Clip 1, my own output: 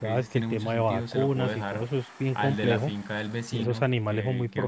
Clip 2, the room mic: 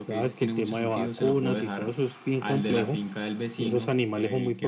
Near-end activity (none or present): none